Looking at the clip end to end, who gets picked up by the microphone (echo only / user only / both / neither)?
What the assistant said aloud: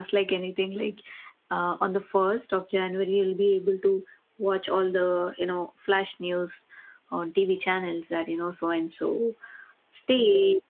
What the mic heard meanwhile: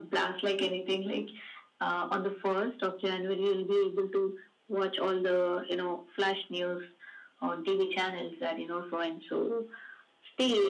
echo only